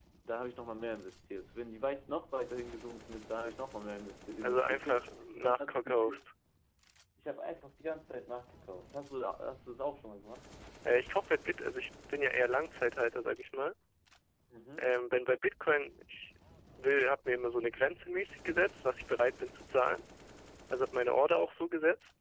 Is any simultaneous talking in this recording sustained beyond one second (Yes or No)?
Yes